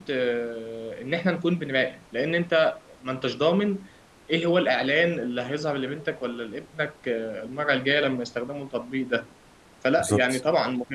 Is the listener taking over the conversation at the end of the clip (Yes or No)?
No